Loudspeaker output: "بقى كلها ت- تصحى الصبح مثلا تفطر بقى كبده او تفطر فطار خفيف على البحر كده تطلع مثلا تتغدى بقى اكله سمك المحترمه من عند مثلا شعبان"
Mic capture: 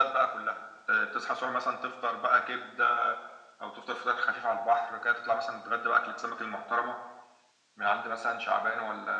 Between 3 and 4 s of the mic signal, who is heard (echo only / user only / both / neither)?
echo only